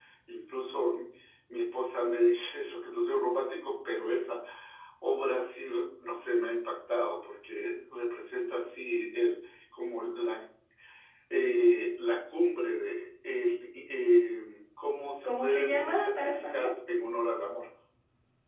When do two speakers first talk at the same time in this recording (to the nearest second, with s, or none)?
15 s